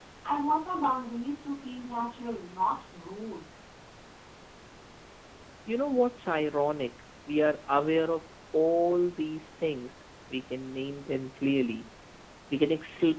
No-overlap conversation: Yes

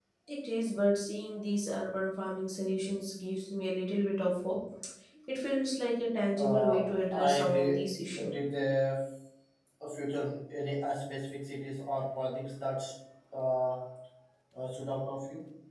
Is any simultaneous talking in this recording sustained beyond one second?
Yes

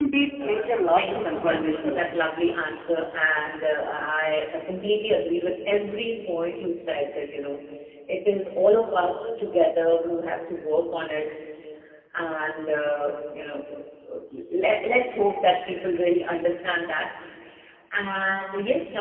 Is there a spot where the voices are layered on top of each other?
Yes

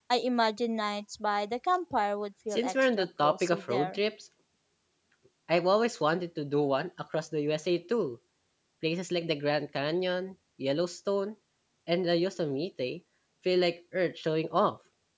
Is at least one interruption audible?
Yes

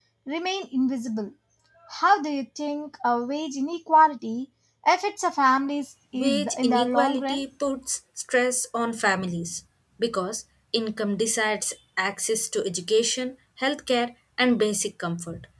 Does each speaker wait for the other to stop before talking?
No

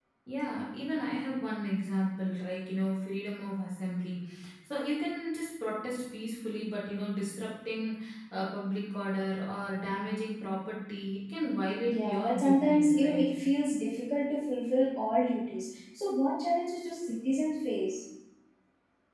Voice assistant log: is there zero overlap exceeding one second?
No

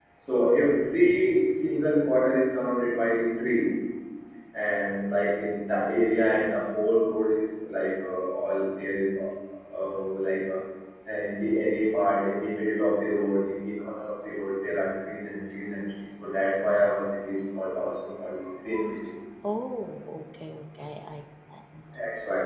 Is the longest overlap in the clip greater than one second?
No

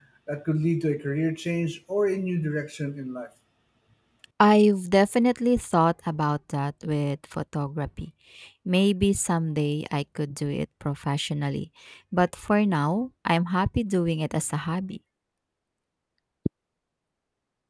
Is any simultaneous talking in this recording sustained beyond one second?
No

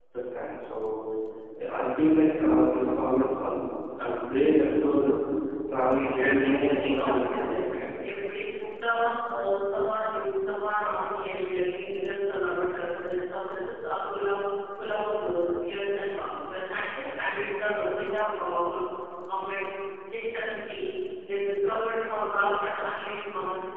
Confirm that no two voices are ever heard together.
No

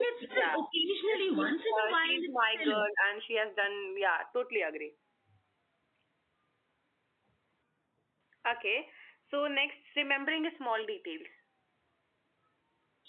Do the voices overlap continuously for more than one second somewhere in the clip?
Yes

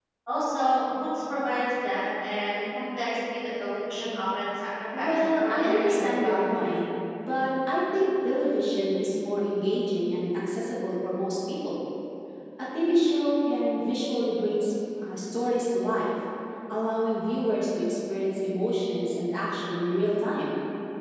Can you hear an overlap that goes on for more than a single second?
Yes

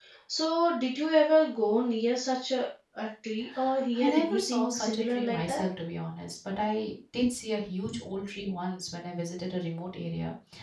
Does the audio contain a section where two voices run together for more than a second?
Yes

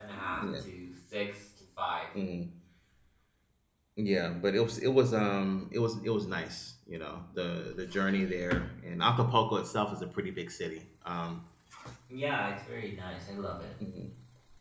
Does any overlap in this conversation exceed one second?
No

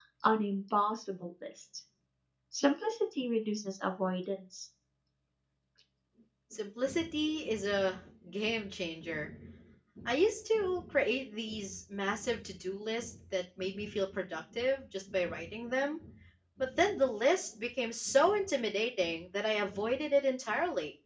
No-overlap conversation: Yes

